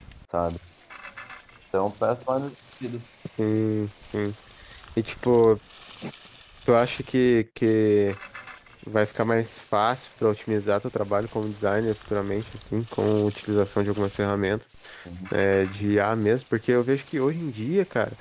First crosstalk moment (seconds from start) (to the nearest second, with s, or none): none